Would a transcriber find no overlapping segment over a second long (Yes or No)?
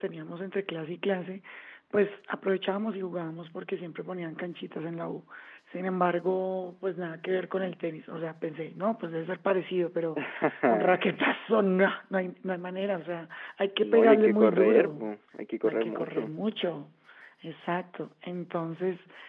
No